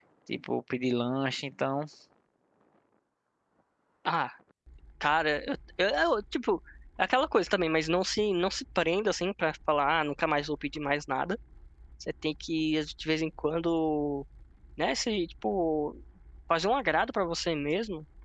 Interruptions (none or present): none